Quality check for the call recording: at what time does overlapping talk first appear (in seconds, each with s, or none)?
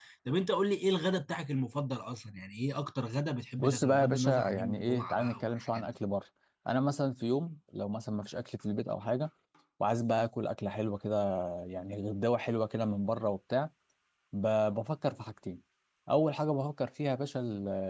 3.6 s